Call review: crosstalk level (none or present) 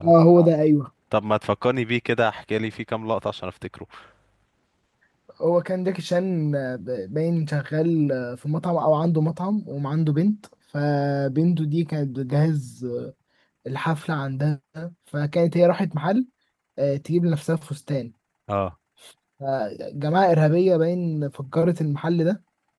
none